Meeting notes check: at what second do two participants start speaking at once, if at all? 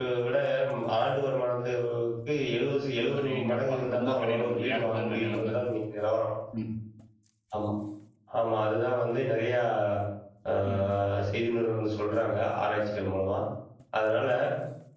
3.2 s

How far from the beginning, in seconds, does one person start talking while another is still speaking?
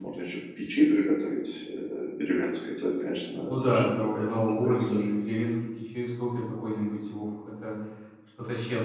3.5 s

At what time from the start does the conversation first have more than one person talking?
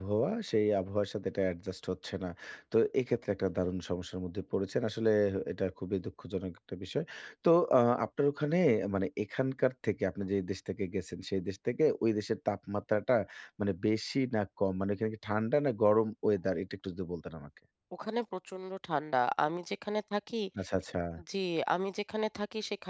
none

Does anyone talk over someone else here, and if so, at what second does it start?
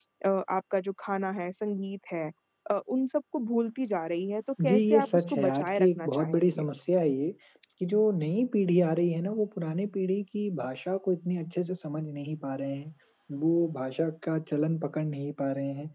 4.6 s

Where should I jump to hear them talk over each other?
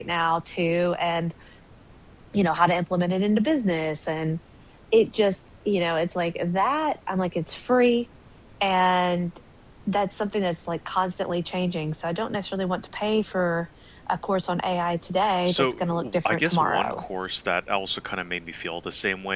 15.2 s

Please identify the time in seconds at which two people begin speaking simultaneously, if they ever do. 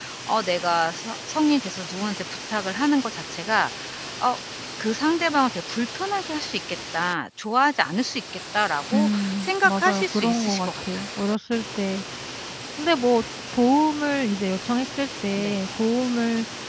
8.9 s

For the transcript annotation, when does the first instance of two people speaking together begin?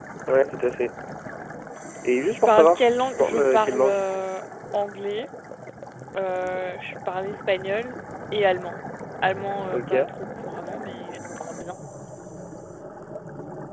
2.5 s

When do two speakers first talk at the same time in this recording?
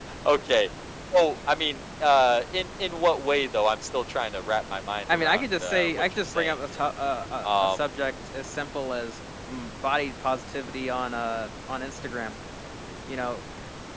5.1 s

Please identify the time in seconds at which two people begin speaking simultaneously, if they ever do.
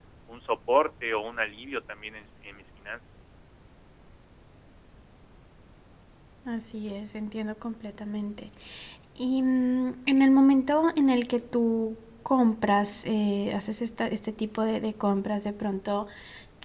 none

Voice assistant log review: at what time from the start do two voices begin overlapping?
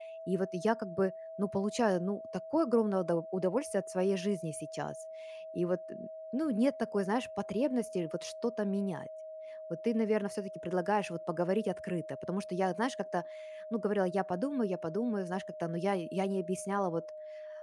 none

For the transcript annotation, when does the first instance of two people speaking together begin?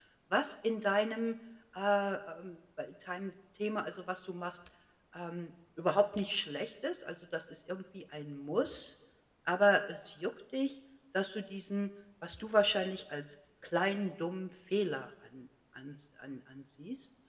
none

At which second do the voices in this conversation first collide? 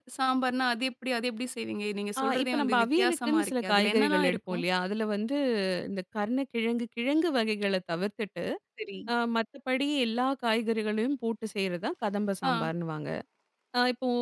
2.2 s

